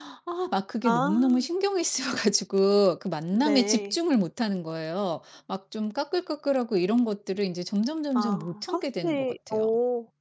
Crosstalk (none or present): present